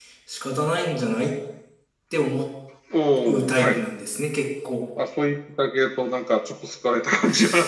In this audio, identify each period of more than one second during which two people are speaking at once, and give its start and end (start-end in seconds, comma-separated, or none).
none